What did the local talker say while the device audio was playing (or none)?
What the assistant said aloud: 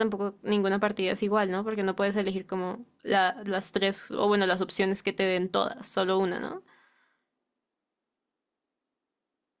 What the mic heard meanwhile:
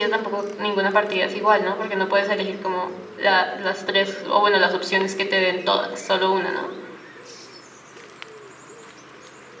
none